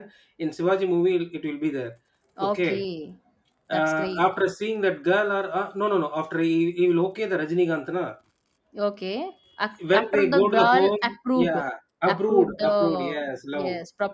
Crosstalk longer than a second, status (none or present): present